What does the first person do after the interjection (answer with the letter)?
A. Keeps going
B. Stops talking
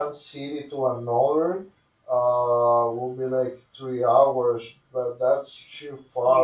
B